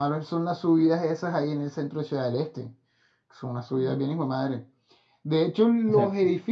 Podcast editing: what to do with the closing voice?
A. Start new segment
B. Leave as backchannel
B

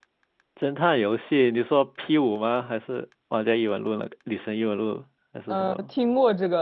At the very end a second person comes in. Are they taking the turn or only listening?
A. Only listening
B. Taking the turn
B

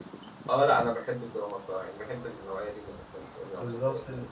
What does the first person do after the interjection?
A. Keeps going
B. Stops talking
B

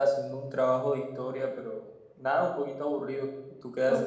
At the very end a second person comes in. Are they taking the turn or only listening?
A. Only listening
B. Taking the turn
B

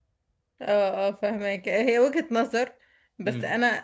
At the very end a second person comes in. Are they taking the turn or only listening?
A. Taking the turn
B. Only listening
B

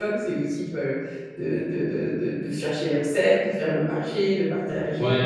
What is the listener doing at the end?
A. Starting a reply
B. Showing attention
A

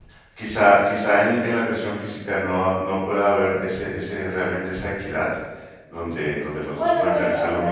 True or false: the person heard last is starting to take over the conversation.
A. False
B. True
B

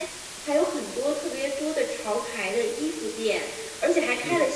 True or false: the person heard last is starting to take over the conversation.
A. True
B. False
B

